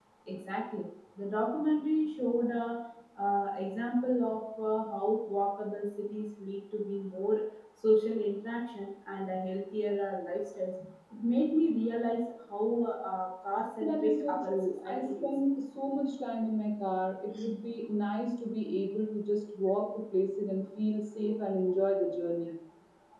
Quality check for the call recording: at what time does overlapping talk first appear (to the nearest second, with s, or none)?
14 s